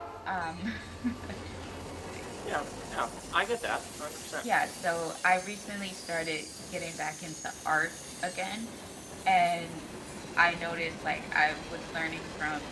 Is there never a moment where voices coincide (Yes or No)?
Yes